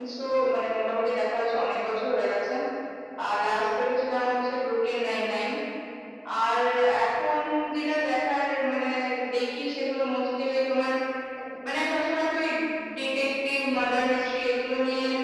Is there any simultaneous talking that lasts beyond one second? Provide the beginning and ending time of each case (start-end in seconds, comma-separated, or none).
none